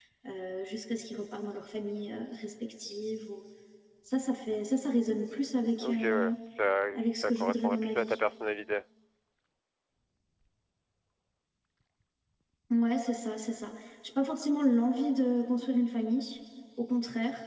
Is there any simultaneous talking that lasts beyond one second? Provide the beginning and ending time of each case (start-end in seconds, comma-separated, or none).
6.9-8.2